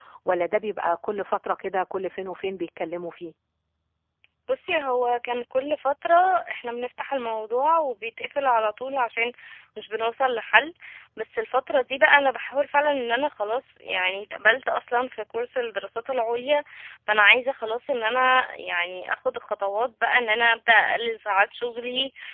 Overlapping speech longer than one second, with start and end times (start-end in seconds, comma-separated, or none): none